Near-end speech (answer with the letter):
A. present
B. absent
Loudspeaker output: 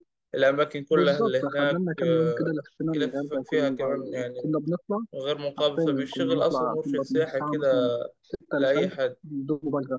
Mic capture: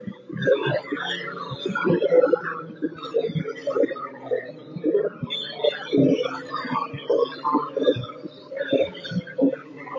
B